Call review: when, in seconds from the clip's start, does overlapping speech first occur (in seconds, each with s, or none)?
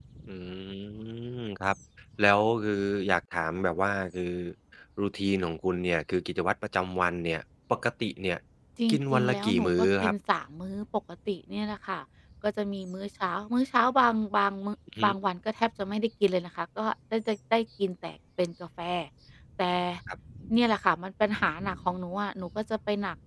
8.9 s